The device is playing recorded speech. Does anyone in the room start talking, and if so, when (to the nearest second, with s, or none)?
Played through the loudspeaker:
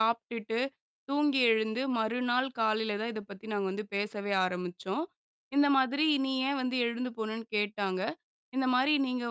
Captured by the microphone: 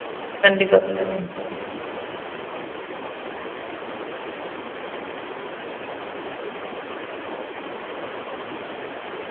0 s